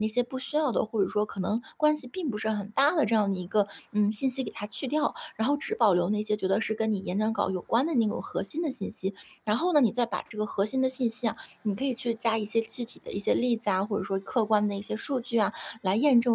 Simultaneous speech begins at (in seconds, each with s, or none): none